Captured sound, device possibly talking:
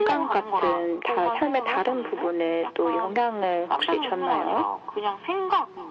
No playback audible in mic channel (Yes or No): No